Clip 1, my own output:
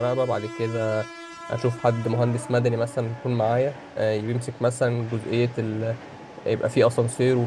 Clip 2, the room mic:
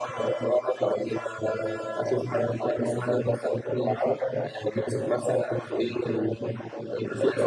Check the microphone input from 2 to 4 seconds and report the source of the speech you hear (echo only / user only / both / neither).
echo only